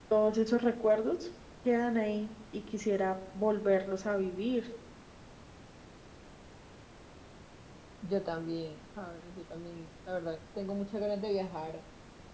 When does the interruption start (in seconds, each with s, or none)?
none